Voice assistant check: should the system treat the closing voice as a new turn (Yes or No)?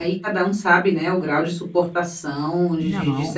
No